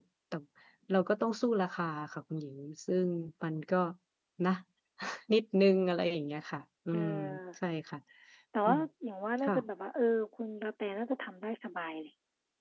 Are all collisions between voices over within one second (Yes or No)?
Yes